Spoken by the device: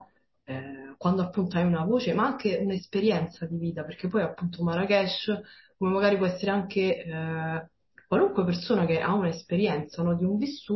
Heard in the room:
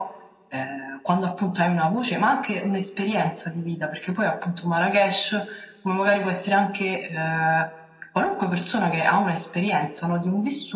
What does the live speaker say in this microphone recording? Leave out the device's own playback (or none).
none